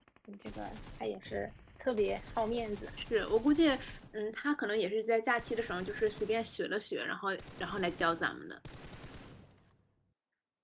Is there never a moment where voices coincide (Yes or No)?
Yes